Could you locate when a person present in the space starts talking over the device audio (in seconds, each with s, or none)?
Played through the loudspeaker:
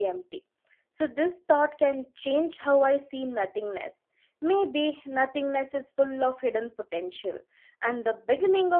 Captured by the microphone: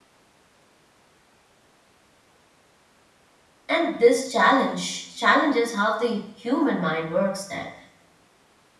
3.7 s